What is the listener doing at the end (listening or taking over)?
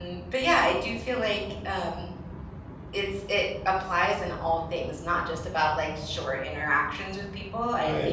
listening